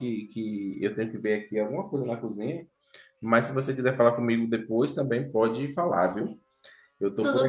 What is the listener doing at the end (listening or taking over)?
listening